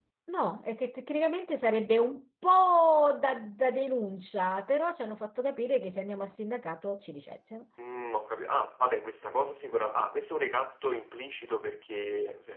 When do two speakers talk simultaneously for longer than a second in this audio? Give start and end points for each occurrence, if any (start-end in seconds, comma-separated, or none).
none